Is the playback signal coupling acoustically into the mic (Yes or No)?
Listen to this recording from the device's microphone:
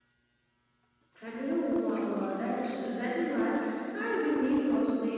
No